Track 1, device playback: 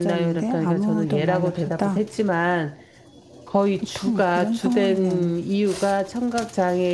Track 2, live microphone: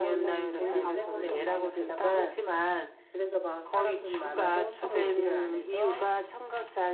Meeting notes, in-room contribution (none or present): present